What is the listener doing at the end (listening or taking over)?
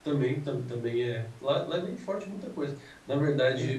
listening